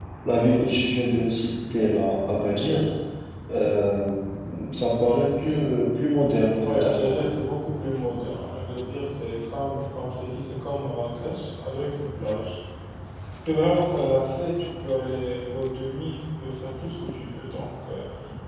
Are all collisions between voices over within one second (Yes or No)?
Yes